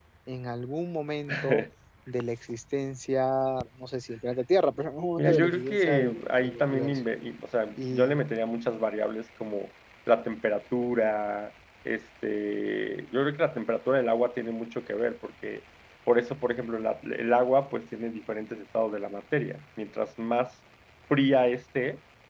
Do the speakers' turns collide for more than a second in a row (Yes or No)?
Yes